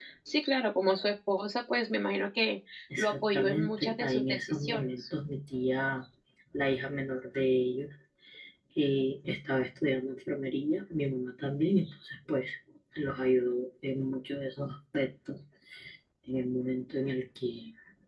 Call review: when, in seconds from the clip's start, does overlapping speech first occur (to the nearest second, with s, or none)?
3 s